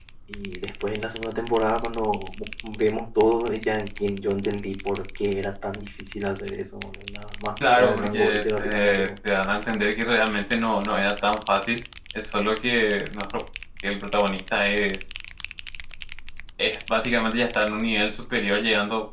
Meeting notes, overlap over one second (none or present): present